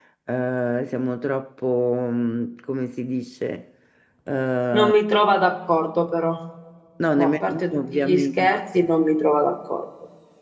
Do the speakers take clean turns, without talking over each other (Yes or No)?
No